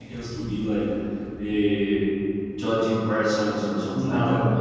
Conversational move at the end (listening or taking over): taking over